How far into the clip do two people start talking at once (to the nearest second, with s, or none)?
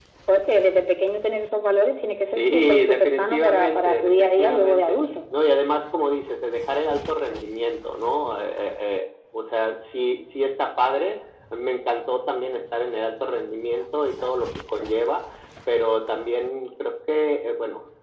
2 s